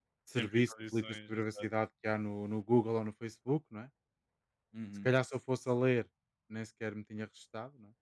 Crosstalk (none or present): present